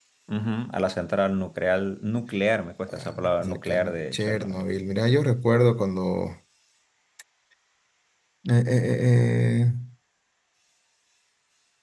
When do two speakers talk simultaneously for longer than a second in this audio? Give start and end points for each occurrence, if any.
2.9-4.6

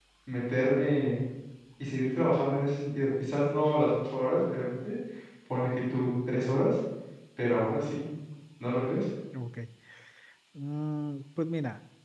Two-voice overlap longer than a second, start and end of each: none

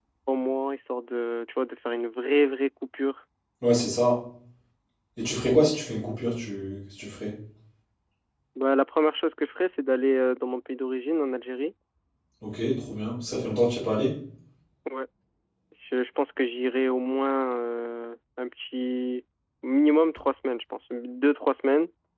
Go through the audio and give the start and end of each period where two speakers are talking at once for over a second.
none

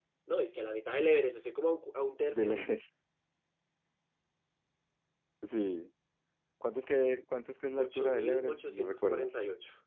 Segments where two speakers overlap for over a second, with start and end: 7.8-9.3

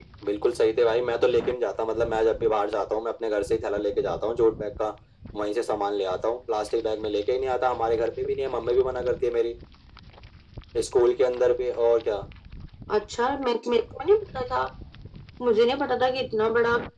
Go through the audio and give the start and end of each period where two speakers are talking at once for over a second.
none

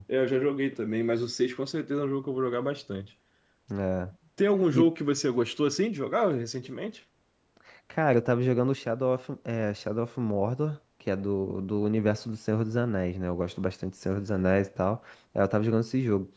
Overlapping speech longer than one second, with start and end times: none

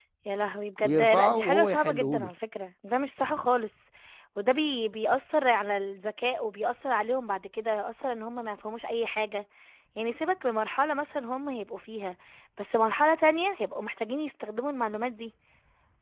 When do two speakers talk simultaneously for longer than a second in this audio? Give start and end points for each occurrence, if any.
0.8-2.3

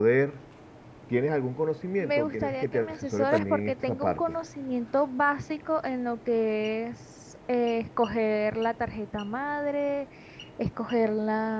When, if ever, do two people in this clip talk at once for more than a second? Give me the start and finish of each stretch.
2.0-4.2

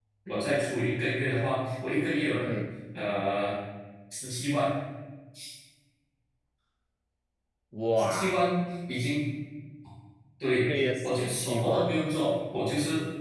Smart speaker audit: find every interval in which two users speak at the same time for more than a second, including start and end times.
10.5-12.0

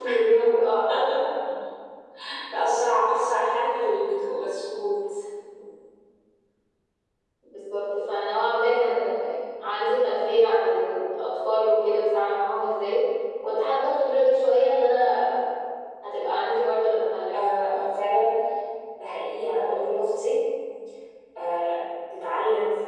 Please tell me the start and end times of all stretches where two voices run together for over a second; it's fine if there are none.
none

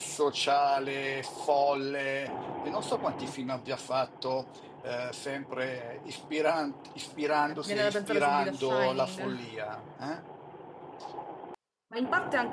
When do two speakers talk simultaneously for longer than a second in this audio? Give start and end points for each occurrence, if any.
7.5-9.4

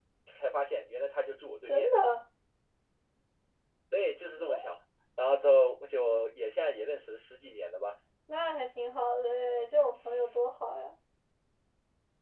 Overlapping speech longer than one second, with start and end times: none

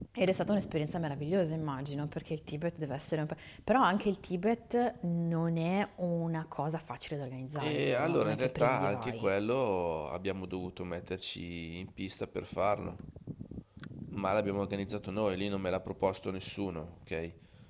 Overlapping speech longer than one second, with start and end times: 7.6-9.3

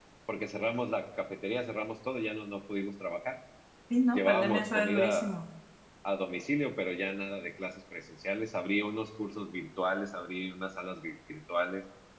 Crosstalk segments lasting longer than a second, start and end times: 4.1-5.4

